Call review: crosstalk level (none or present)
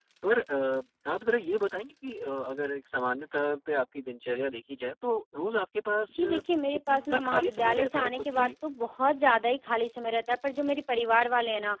present